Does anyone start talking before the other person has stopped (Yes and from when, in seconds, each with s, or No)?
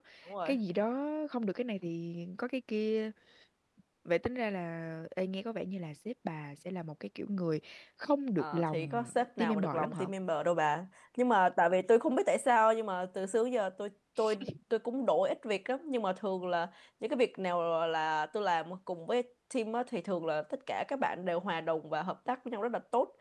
Yes, from 8.4 s